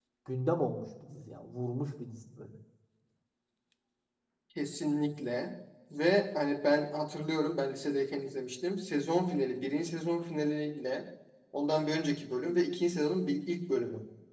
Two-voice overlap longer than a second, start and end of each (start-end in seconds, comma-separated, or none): none